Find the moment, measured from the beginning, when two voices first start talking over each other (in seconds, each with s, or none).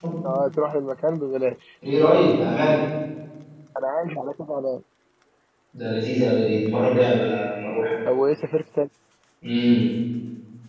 none